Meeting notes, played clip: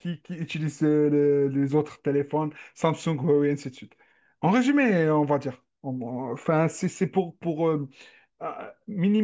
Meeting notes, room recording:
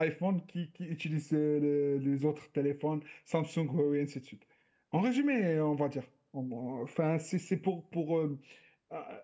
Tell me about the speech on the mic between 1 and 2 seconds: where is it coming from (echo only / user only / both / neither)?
echo only